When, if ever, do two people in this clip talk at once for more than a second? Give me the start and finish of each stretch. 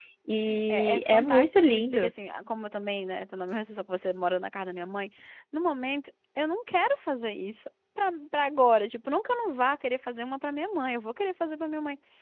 0.7-2.1

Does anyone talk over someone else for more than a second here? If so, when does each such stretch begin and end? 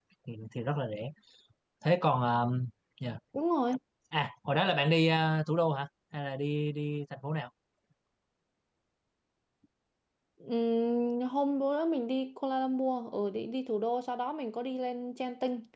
none

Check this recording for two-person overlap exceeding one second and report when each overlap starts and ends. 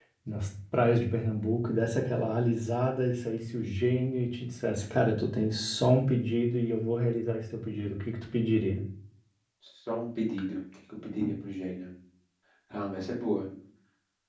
none

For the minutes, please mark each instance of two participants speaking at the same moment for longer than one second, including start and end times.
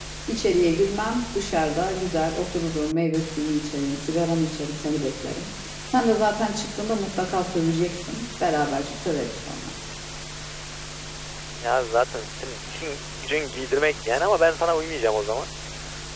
none

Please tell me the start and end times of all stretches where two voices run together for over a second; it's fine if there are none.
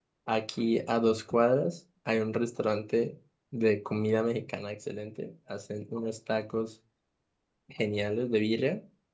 none

